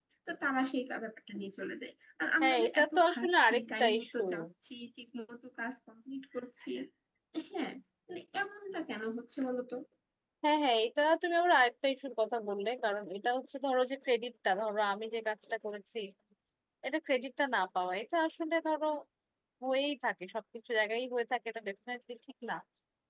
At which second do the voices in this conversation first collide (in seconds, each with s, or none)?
2.4 s